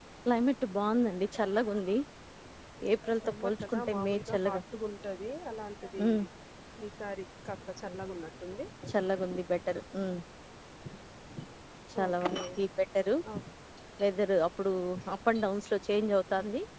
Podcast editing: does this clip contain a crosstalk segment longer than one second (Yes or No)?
Yes